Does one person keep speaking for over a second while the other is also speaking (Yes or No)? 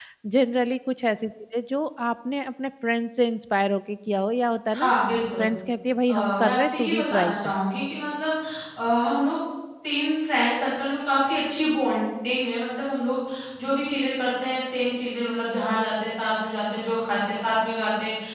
Yes